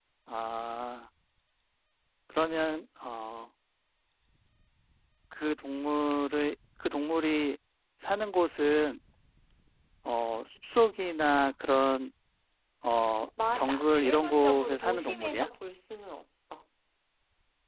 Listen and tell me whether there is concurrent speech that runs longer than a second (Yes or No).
Yes